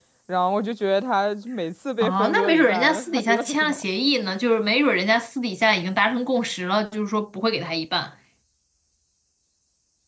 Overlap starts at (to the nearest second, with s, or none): 2 s